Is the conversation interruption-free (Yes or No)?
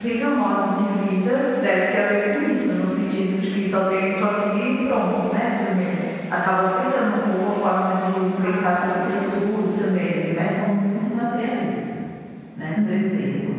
No